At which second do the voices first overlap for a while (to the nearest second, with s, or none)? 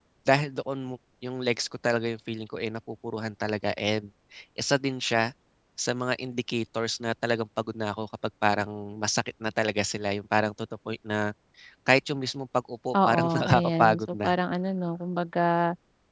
13 s